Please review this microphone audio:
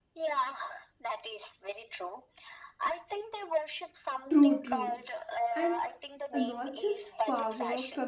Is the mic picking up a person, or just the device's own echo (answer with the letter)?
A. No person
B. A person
B